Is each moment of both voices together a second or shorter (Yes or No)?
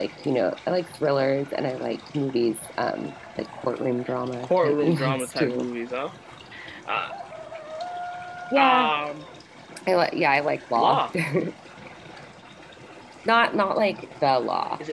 No